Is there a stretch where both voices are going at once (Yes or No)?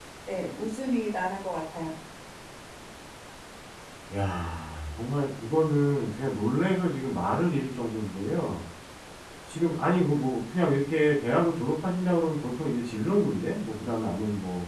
No